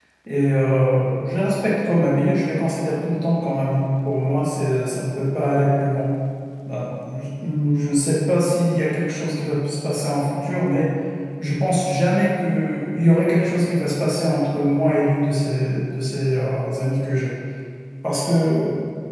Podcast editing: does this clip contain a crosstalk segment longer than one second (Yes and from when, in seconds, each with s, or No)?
No